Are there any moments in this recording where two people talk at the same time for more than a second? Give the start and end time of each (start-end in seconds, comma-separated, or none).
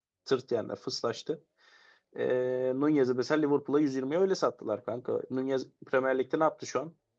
none